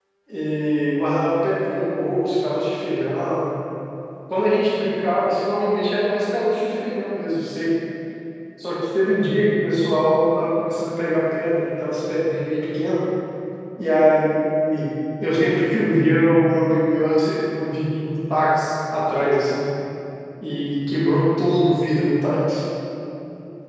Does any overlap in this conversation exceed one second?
No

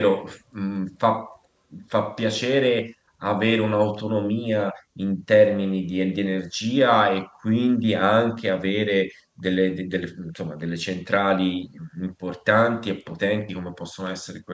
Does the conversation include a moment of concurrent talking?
No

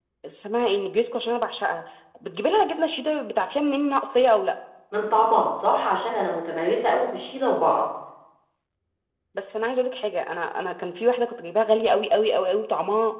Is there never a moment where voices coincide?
Yes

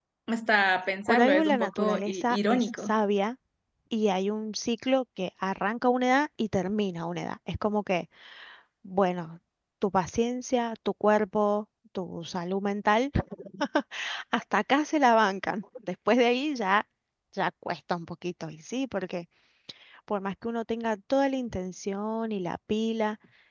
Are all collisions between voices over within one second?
No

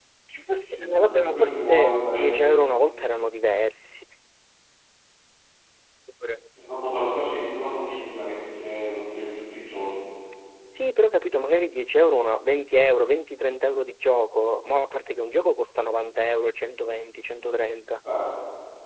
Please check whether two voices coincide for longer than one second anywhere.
Yes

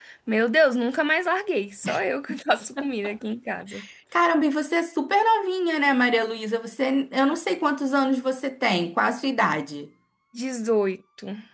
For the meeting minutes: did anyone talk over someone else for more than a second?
No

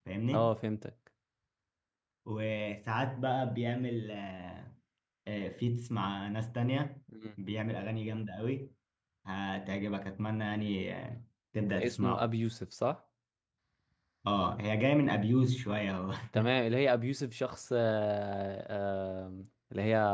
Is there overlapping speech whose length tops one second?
No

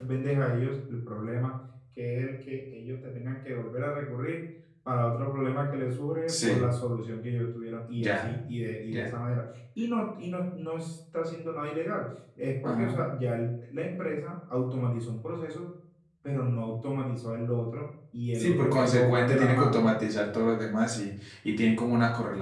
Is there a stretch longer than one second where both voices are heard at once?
Yes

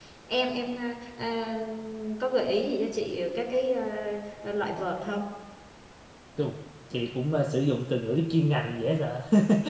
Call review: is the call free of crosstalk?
Yes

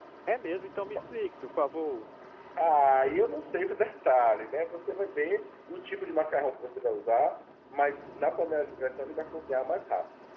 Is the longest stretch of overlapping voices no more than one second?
Yes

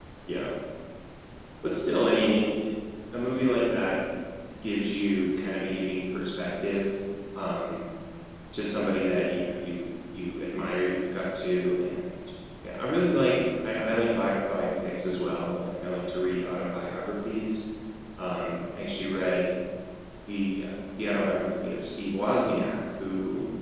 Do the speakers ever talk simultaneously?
No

